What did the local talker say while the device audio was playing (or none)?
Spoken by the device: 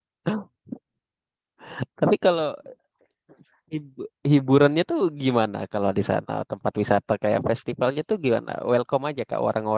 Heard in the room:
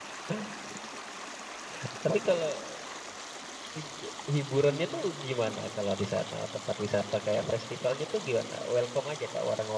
none